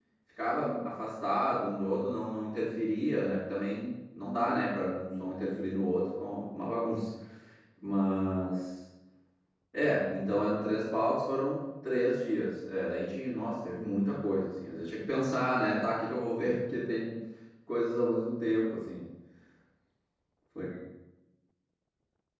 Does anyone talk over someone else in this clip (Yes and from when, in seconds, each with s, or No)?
No